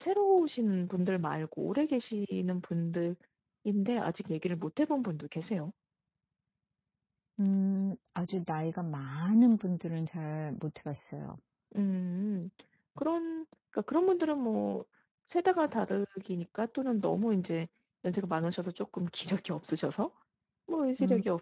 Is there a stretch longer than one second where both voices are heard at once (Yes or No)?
No